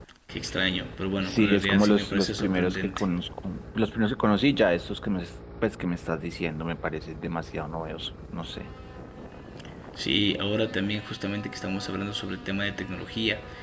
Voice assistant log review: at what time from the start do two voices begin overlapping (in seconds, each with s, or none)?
1.2 s